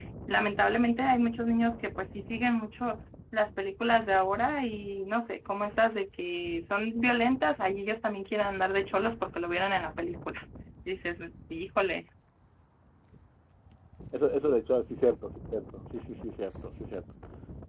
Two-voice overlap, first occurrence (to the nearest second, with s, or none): none